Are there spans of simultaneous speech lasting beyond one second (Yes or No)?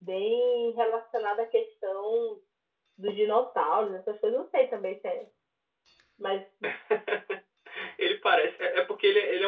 No